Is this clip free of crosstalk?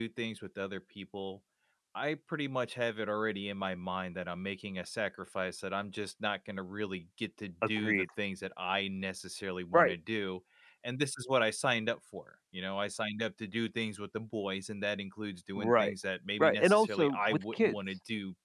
No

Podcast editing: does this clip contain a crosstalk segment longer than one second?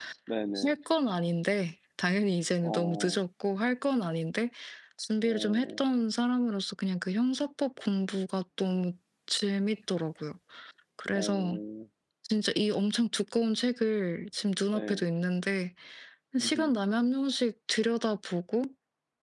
No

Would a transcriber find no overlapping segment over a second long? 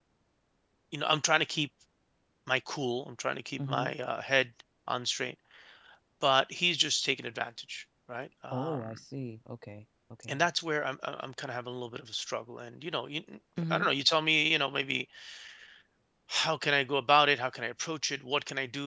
Yes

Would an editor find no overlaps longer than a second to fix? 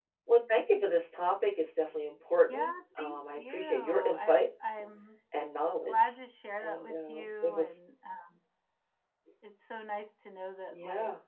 No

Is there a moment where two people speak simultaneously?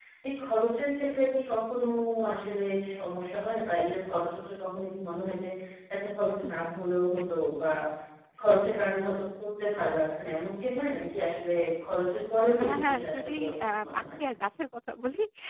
Yes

